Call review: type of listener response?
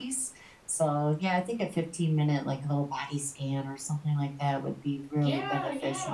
taking over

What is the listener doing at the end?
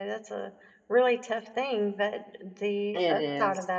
listening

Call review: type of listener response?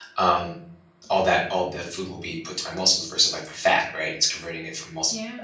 listening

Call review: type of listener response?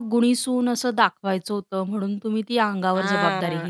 taking over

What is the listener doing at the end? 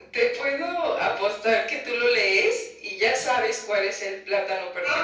taking over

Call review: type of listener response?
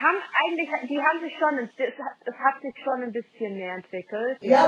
taking over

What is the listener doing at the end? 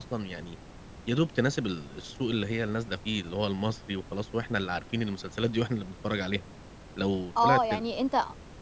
taking over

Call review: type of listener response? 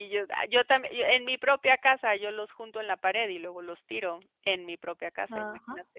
taking over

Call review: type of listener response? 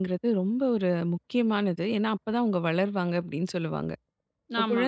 listening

